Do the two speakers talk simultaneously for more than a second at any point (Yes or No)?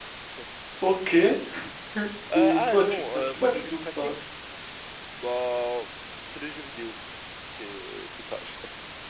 Yes